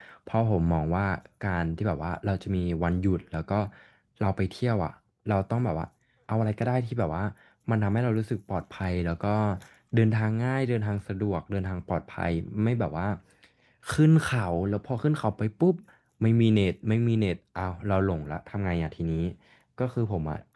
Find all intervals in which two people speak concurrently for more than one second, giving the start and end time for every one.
none

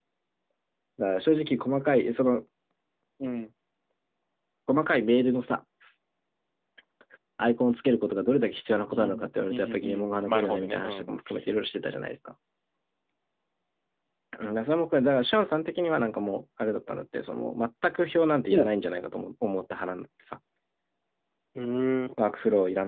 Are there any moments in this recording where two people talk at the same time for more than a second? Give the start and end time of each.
9.5-11.1

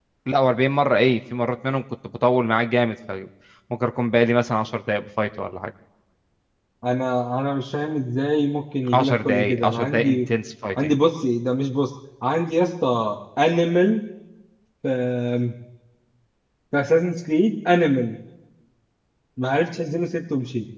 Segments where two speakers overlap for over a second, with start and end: 8.9-10.2

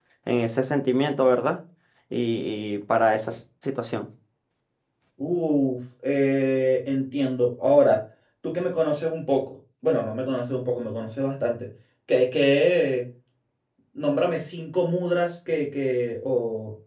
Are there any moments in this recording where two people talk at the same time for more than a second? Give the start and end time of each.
none

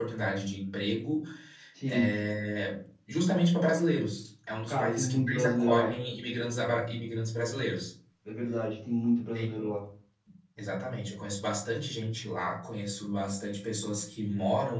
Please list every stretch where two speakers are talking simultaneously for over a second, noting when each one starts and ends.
4.7-5.9

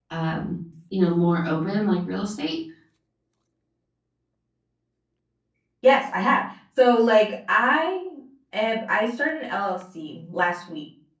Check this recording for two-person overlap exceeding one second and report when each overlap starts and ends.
none

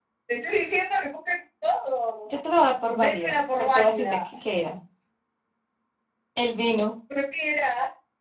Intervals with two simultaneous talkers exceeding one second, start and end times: 2.9-4.2

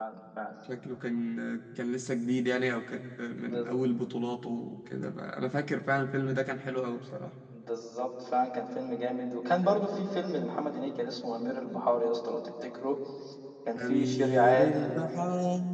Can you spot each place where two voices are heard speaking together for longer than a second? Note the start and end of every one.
13.8-15.0

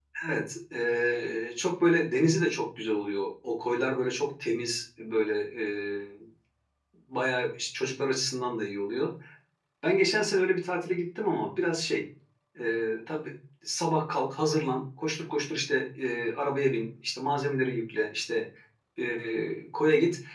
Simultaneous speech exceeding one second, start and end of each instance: none

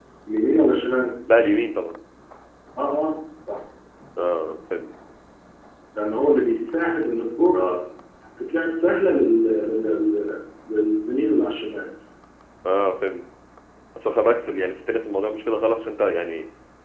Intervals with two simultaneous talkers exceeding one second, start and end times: none

